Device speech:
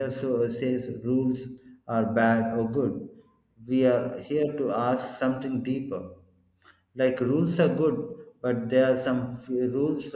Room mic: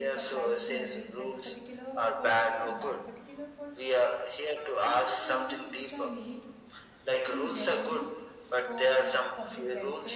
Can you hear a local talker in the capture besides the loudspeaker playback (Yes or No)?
Yes